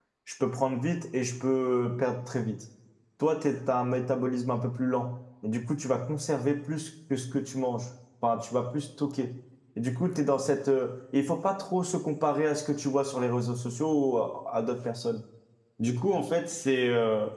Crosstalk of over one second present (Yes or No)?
No